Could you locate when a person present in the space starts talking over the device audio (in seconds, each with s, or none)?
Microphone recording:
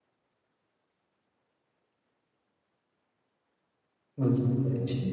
4.2 s